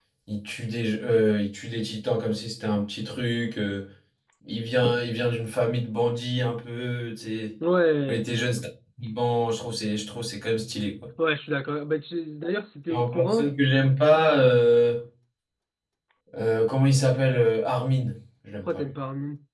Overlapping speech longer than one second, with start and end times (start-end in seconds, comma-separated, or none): none